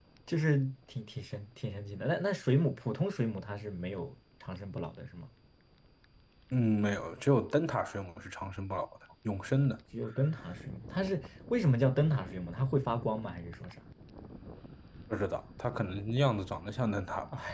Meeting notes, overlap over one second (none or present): none